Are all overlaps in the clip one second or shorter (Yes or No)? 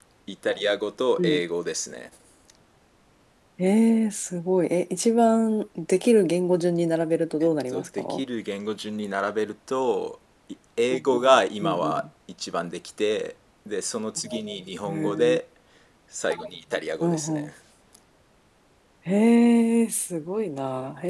Yes